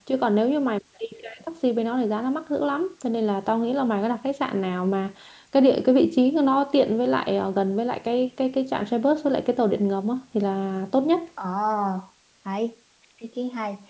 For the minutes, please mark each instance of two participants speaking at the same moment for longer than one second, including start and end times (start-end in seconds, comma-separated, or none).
none